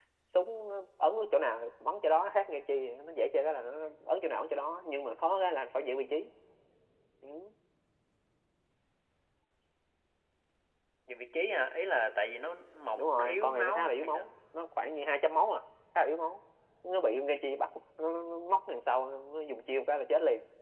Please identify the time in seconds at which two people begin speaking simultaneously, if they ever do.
13.0 s

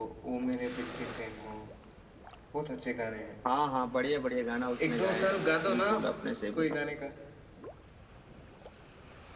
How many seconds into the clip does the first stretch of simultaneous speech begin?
4.8 s

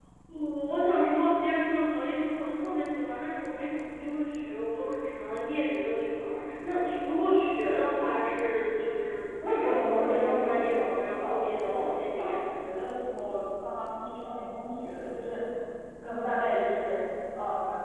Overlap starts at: 9.4 s

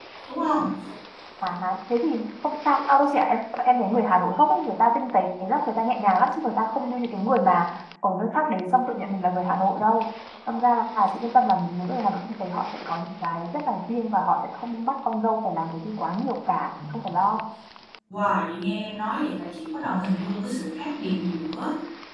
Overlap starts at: none

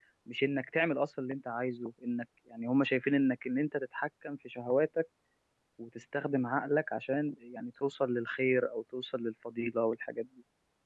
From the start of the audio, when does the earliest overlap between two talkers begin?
none

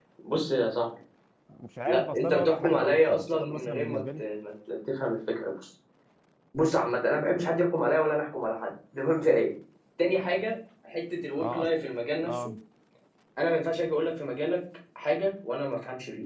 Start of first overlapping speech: 1.9 s

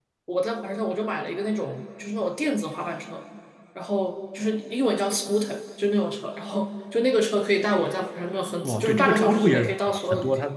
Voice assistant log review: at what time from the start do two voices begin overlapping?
8.6 s

